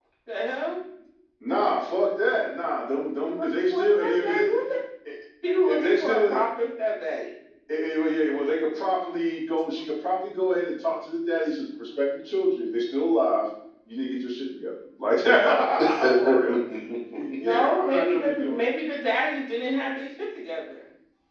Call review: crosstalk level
present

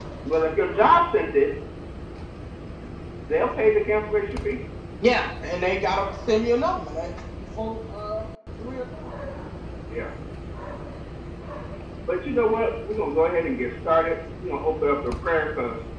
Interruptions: none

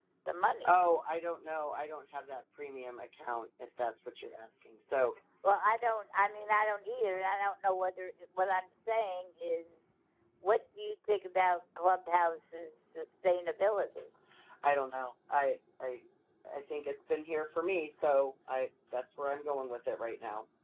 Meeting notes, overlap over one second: none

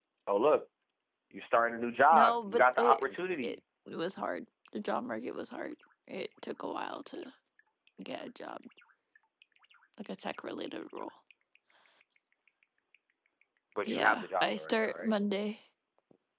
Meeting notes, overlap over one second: present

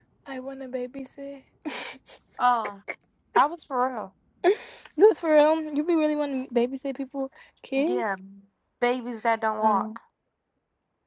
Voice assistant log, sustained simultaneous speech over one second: none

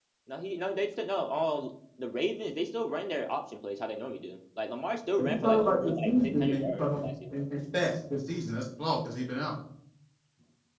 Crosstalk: present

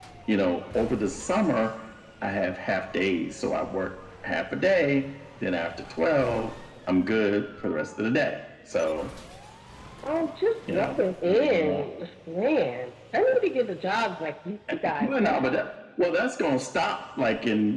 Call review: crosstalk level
present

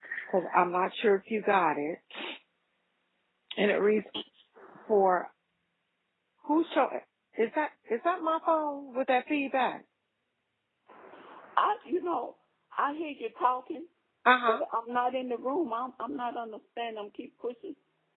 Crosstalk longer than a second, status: none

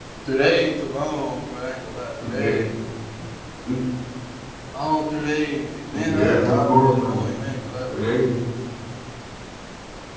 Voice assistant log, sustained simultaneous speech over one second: present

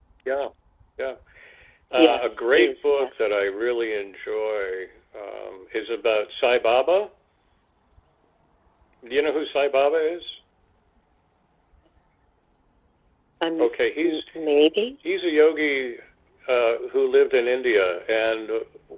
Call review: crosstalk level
present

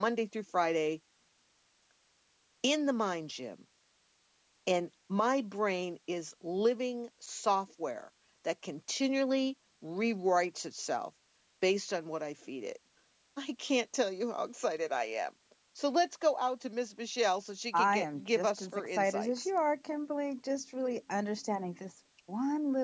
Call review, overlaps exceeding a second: present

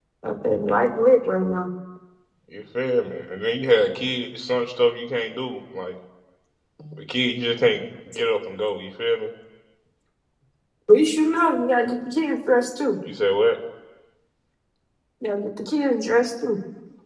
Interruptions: none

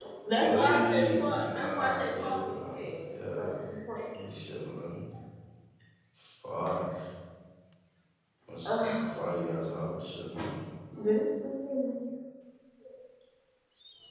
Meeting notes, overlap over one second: present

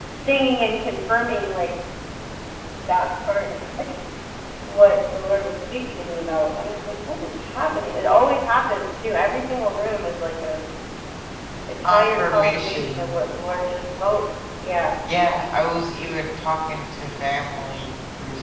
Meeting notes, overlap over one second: present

